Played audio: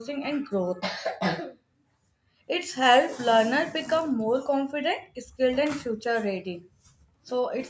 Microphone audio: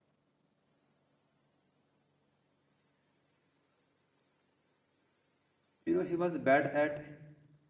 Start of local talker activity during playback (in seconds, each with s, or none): 5.8 s